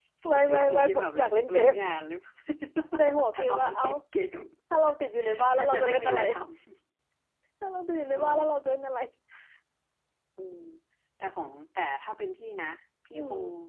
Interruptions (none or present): present